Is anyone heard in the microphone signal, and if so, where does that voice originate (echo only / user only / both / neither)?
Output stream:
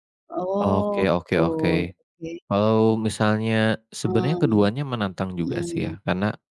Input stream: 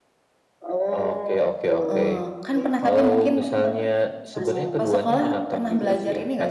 both